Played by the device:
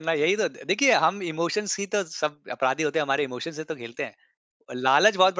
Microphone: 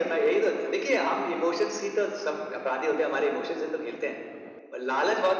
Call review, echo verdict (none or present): present